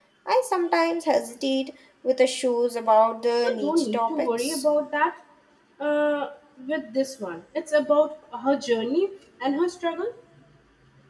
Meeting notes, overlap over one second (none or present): present